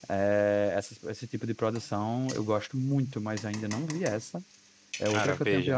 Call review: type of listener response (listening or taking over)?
taking over